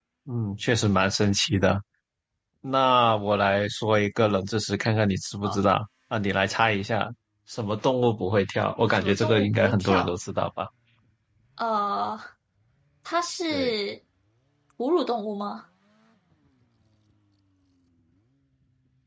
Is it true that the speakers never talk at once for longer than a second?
No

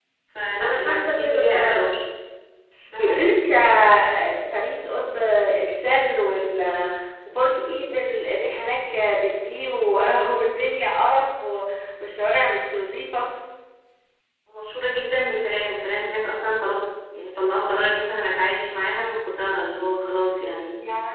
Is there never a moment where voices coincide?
No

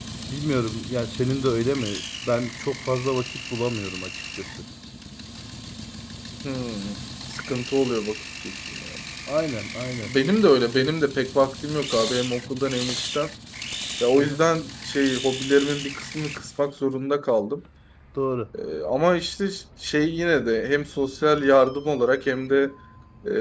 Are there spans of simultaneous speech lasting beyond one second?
No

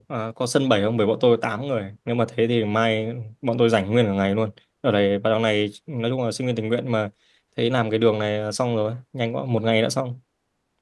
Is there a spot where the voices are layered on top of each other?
No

